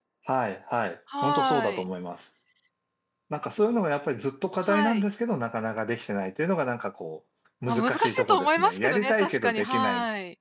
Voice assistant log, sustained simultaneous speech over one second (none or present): present